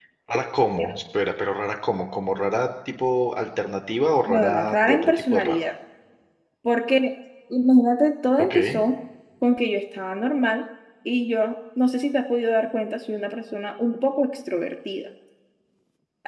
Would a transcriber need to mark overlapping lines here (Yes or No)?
Yes